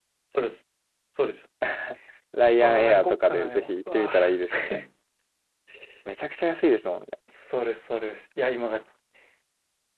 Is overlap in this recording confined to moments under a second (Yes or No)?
No